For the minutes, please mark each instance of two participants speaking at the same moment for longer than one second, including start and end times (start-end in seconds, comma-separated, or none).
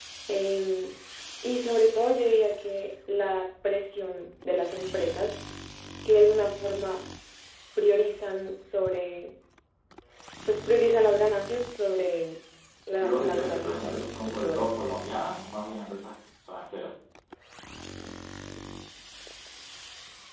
13.0-14.8